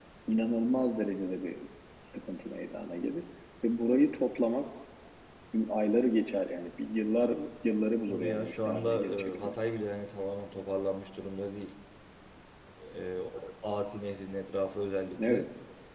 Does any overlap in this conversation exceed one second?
Yes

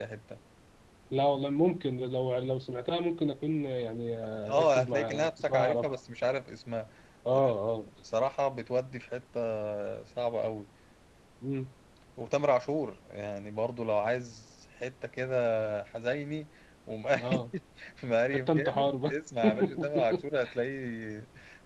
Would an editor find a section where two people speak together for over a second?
Yes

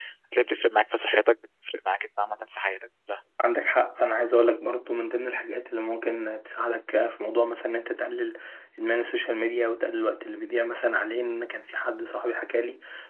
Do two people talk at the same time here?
No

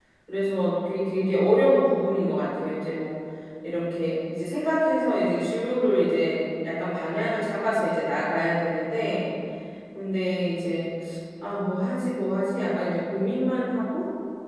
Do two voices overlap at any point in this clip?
No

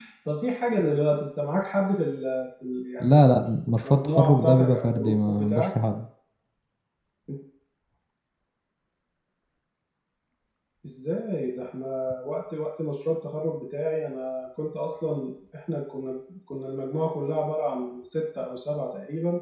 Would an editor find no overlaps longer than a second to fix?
No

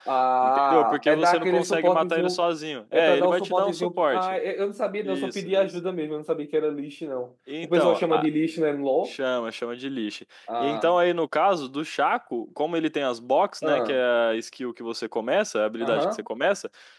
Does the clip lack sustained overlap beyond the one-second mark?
No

